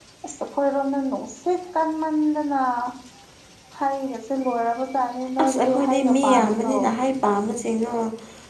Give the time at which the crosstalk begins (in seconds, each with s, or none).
5.4 s